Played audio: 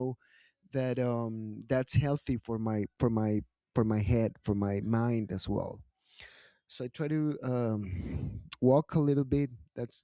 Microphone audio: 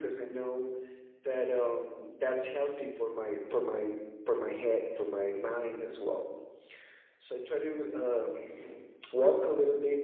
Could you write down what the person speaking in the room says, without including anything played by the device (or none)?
none